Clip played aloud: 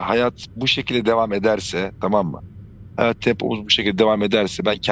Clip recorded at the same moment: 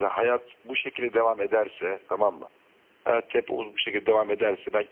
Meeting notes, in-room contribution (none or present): none